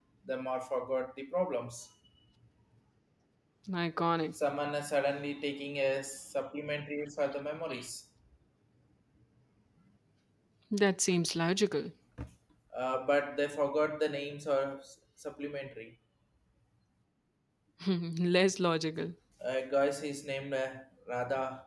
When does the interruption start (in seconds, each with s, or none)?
none